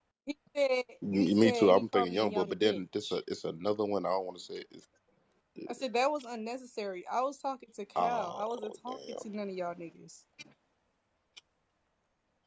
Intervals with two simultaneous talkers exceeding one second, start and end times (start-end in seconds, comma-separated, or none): 1.1-3.2, 8.0-9.2